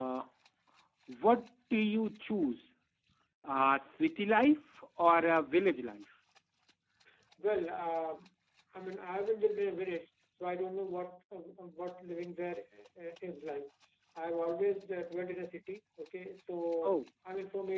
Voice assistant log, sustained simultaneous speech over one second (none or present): none